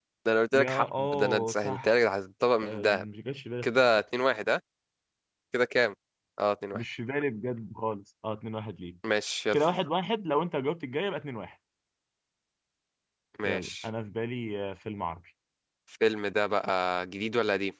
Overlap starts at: 1 s

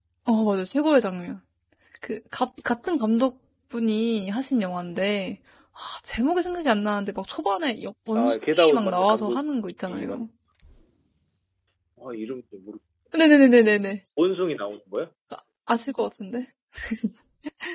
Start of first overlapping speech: 8 s

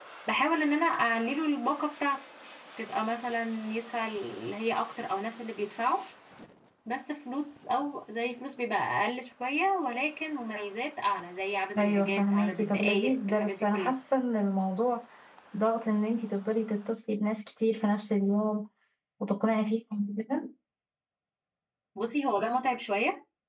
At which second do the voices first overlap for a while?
12 s

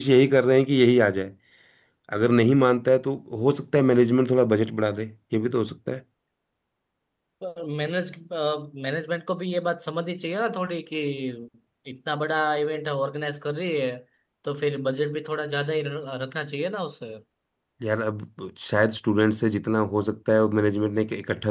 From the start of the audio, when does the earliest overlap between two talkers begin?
none

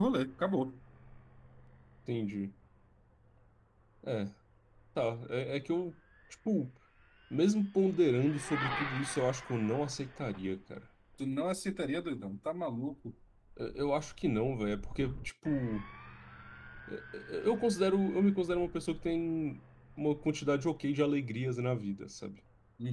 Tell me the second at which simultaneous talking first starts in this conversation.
none

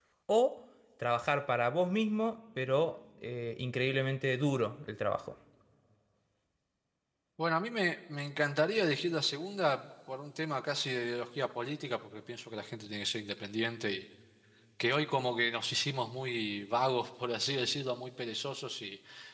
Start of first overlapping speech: none

